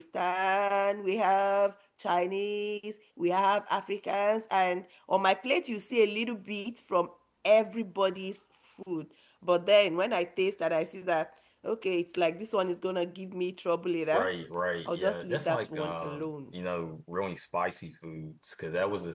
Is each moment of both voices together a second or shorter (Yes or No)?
No